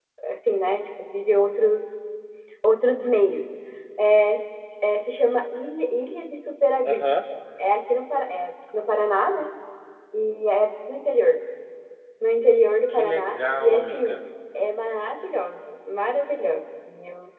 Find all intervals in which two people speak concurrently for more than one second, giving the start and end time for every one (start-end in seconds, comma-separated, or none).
12.9-14.2